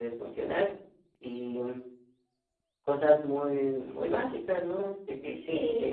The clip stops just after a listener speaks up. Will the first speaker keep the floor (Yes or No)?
No